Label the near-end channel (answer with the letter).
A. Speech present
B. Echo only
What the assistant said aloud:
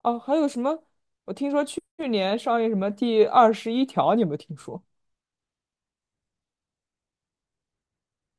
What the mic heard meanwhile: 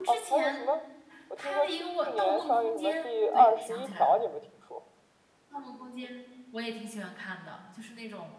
A